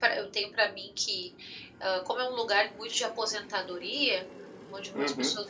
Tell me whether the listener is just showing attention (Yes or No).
Yes